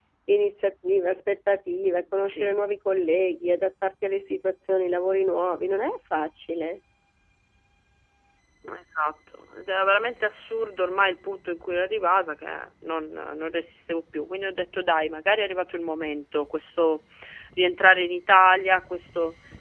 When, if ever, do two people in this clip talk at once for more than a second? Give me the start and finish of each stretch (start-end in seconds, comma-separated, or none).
none